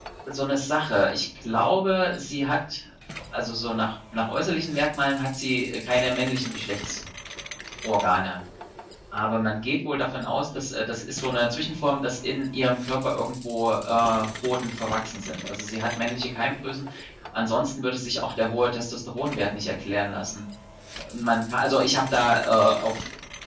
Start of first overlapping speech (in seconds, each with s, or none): none